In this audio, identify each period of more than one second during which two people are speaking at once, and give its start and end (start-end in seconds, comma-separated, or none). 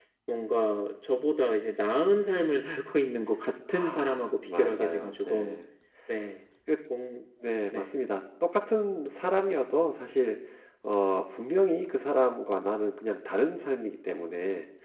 3.7-5.6